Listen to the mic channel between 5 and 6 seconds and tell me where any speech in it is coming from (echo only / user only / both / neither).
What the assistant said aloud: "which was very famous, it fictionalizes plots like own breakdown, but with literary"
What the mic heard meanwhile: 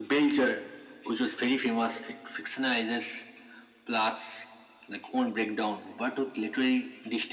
echo only